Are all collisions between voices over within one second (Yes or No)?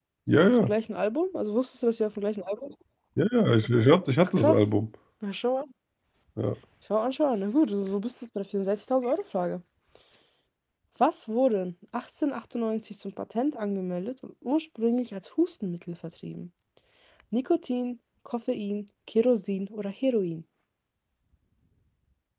Yes